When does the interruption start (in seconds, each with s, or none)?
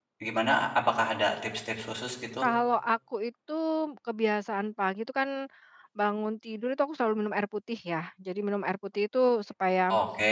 none